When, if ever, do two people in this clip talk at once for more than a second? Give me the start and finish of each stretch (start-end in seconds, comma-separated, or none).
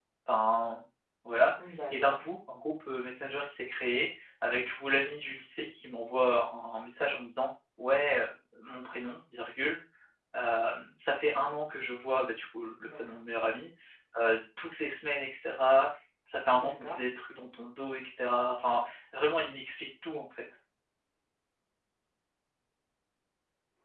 none